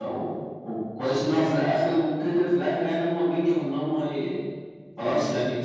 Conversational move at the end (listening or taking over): listening